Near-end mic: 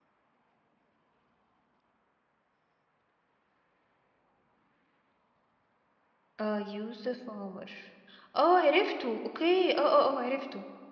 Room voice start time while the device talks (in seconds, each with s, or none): 6.4 s